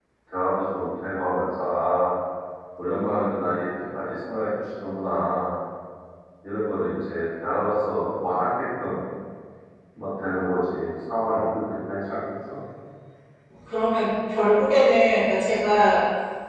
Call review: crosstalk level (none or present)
none